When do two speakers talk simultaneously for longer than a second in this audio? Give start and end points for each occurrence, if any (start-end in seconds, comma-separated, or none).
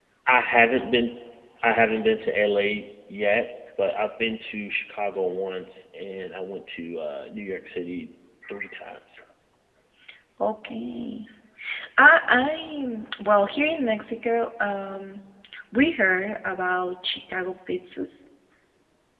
none